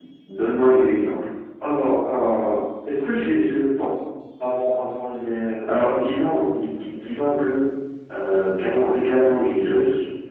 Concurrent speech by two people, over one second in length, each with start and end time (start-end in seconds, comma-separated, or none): none